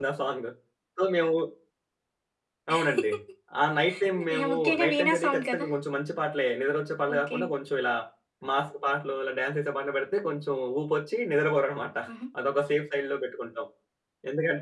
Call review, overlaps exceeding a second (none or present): present